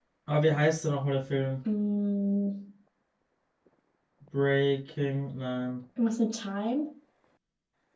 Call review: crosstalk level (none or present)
none